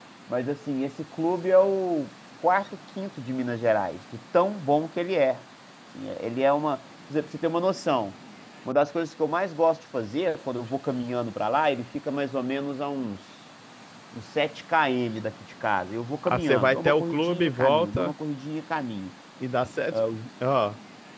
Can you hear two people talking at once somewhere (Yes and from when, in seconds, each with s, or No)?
Yes, from 16.3 s